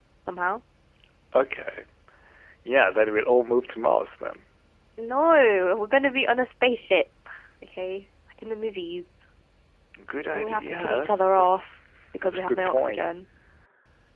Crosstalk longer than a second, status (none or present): present